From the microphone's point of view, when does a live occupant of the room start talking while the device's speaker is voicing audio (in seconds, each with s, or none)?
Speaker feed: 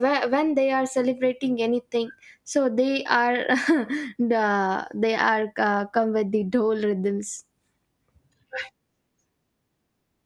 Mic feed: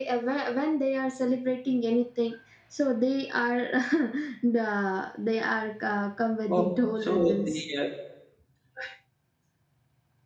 6.5 s